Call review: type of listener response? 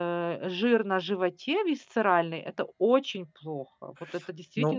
taking over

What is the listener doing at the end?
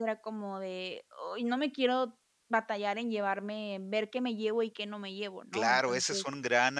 taking over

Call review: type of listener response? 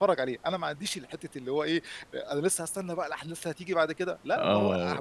taking over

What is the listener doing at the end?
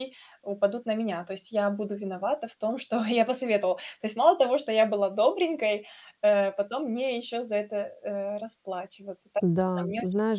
taking over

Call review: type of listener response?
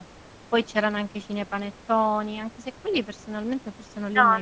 taking over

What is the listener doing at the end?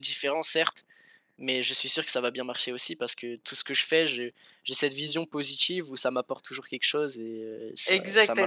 taking over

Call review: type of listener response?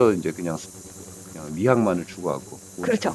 taking over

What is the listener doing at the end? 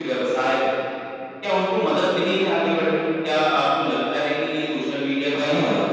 taking over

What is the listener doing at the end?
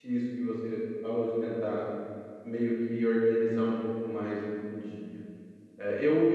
taking over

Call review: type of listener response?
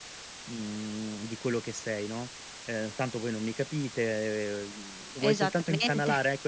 listening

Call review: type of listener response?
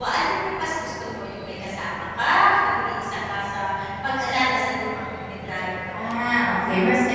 taking over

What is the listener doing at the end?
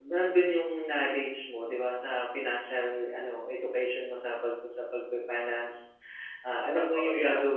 listening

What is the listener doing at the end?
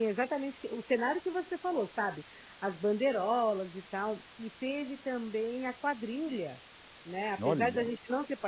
listening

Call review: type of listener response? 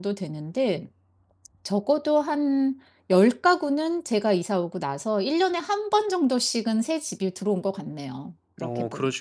taking over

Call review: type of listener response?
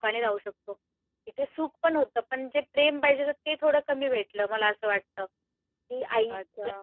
taking over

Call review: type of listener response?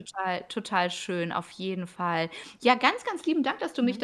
listening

